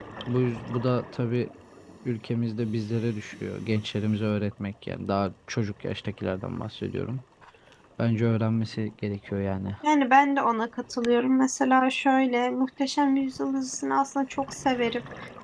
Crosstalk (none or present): none